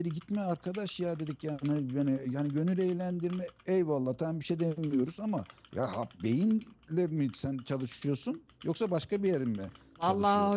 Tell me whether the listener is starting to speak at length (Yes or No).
Yes